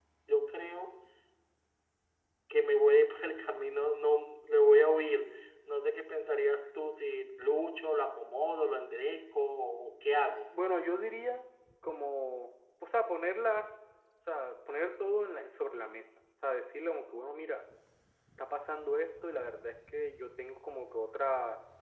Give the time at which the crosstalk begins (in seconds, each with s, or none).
none